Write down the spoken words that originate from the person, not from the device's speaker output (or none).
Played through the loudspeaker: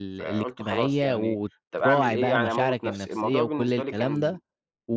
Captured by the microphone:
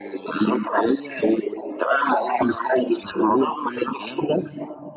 none